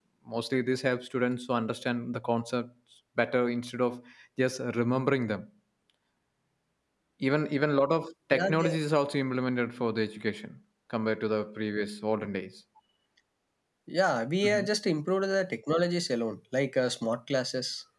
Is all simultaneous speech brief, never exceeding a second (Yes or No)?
Yes